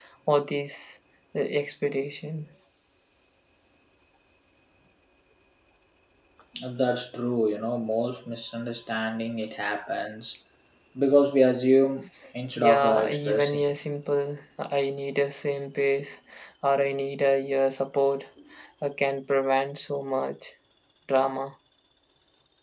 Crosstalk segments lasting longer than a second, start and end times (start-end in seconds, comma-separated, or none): 12.6-13.8